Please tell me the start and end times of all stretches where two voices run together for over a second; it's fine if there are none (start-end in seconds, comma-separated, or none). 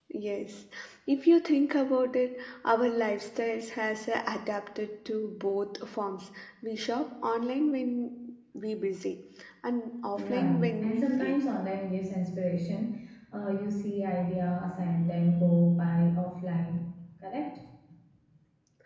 10.2-11.4